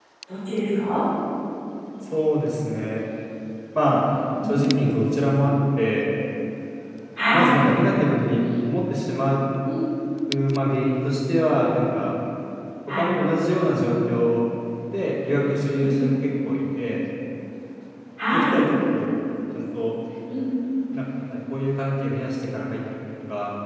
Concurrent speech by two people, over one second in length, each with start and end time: none

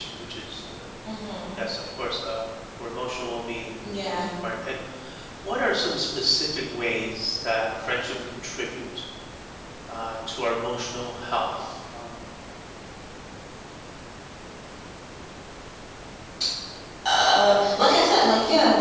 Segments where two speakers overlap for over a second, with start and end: none

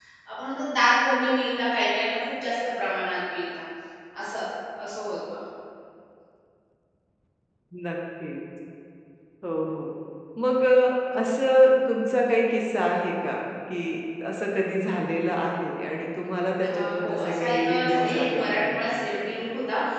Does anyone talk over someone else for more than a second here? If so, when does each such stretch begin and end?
16.6-18.6

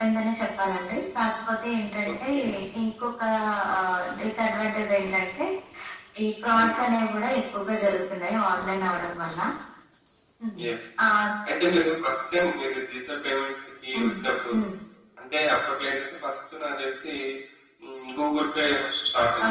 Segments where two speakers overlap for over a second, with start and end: none

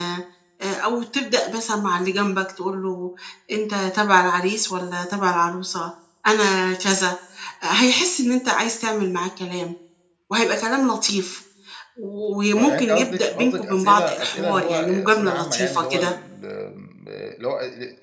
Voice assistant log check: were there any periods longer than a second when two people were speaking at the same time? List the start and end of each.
12.6-16.1

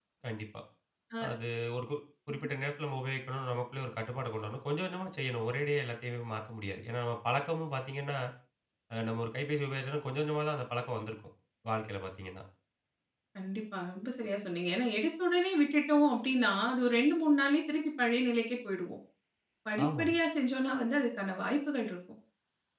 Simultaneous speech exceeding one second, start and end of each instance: none

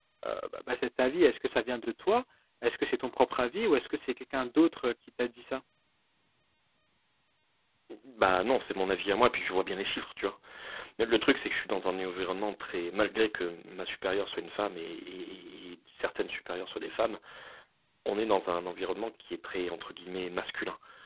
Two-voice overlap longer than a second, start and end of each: none

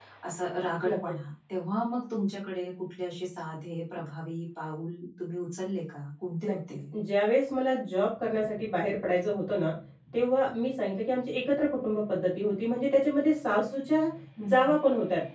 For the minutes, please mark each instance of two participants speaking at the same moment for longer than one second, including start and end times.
none

